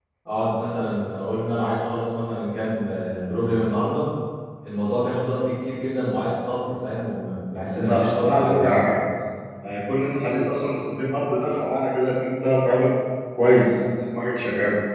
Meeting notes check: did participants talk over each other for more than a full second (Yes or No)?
Yes